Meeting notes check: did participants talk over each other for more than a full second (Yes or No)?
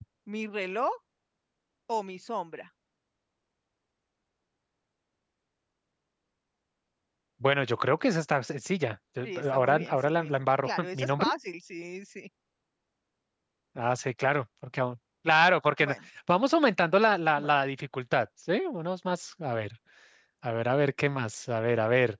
Yes